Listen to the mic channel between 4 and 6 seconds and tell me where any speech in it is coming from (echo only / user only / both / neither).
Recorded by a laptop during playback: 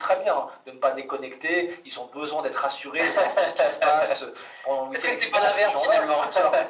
echo only